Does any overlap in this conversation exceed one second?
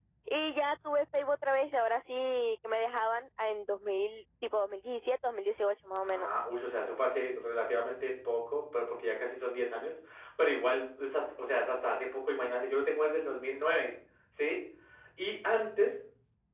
No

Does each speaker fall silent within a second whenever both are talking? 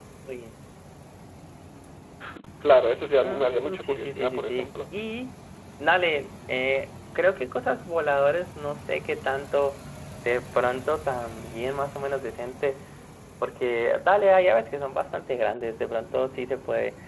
No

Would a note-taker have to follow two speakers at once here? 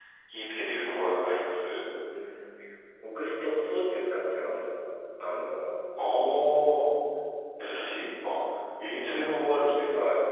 No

